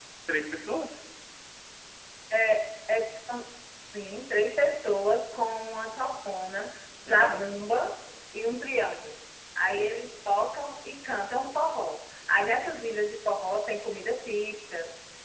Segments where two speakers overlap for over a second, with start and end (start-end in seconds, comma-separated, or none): none